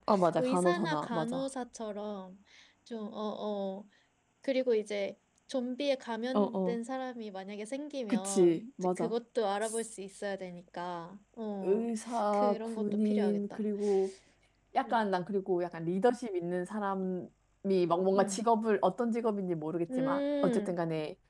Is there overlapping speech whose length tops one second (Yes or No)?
Yes